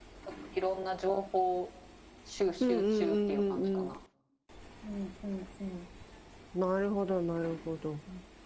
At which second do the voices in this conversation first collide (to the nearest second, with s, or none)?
3 s